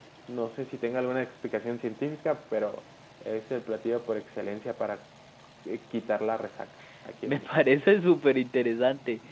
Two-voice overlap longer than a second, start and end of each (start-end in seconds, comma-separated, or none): none